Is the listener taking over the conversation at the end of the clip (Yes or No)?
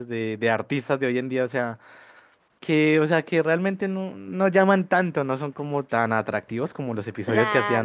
Yes